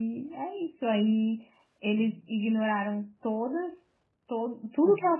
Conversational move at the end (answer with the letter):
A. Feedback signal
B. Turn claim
A